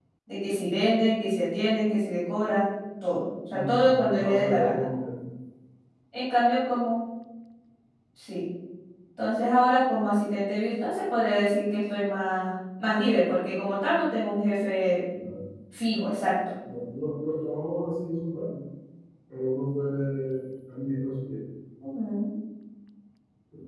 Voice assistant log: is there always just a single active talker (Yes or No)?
No